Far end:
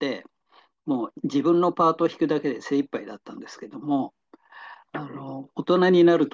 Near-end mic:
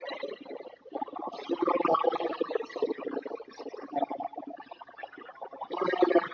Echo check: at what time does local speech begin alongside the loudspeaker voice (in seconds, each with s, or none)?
none